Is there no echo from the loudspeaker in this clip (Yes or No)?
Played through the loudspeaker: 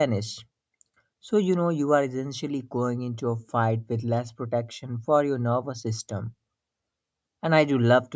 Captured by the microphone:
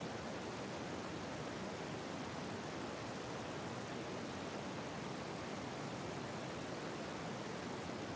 Yes